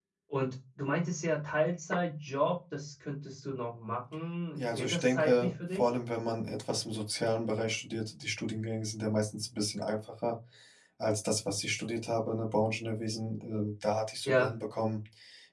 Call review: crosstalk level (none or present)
present